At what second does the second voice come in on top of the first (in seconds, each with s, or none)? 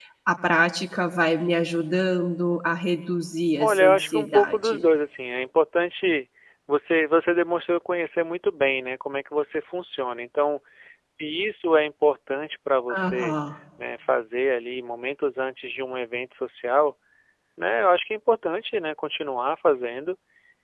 3.6 s